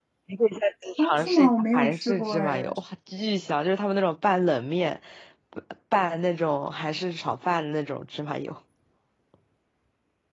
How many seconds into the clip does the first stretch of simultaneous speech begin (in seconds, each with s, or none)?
1.0 s